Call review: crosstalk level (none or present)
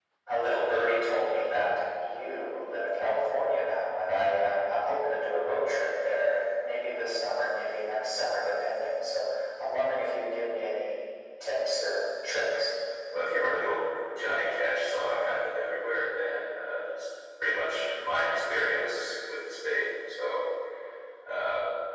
none